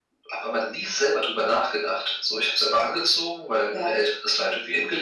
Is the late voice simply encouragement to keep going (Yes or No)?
Yes